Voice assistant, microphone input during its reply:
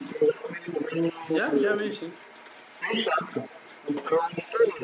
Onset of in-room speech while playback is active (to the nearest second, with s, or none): 1 s